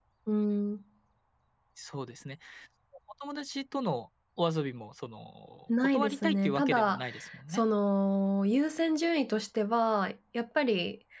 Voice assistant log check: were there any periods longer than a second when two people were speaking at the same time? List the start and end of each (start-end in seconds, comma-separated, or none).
5.8-7.0